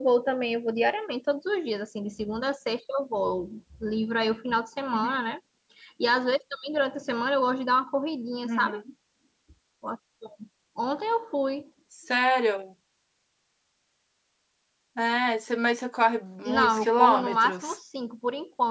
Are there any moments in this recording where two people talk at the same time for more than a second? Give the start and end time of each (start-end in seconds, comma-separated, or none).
16.4-17.8